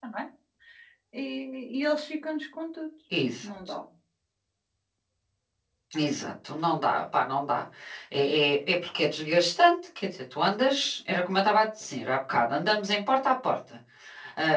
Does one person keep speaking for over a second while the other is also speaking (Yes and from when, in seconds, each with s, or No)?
No